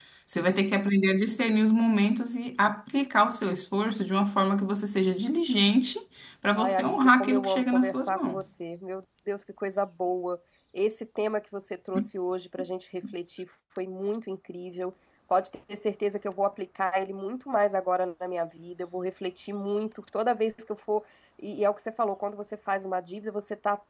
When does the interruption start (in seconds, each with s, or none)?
6.6 s